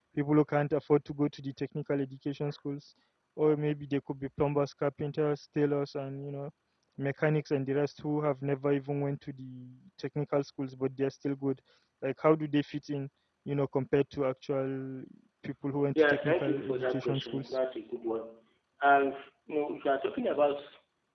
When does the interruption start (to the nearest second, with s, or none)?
16 s